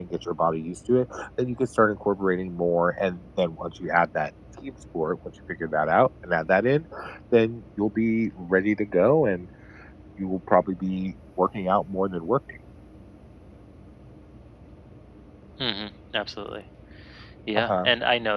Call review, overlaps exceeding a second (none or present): none